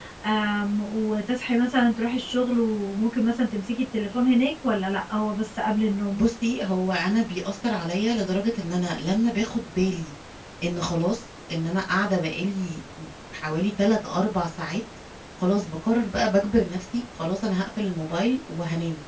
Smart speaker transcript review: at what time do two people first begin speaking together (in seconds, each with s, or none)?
none